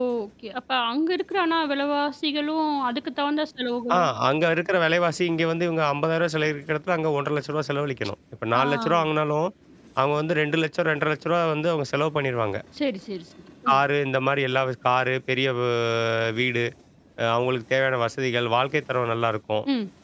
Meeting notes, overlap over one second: none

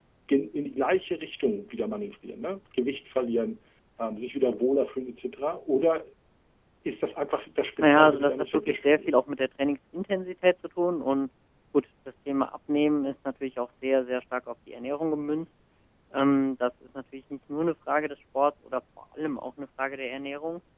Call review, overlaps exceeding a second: present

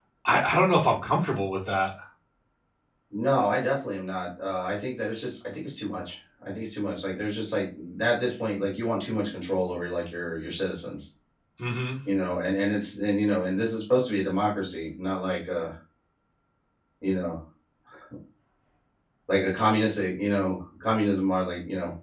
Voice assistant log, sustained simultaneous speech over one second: none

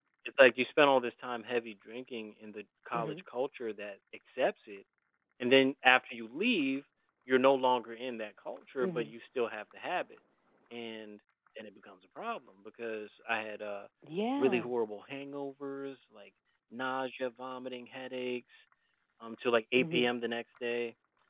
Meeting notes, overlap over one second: none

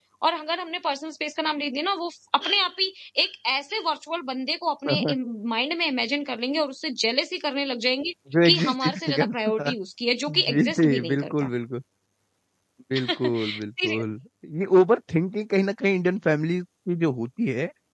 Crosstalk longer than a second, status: present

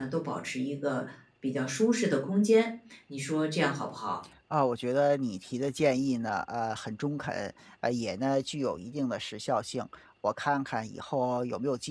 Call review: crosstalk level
none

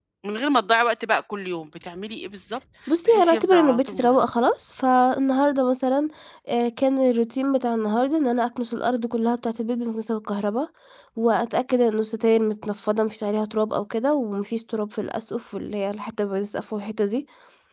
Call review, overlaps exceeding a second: present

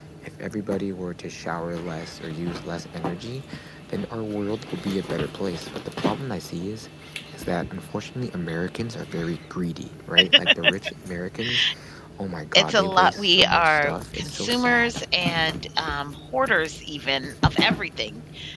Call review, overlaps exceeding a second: present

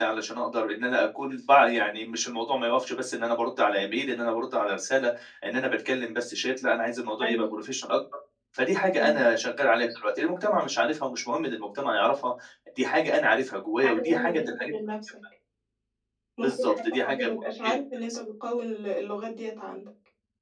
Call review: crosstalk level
present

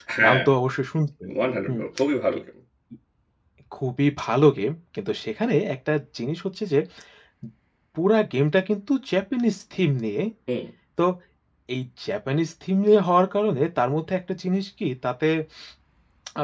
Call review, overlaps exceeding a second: none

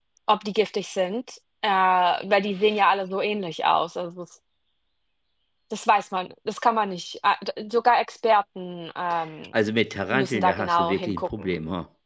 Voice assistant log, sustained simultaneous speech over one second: present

